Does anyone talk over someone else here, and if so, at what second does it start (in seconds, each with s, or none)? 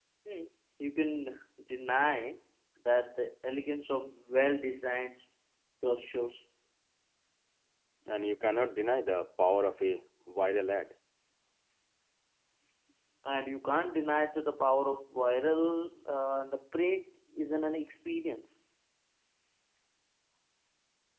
none